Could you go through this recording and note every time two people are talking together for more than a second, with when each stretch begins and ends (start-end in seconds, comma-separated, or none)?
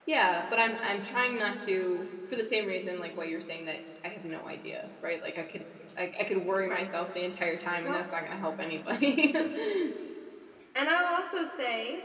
none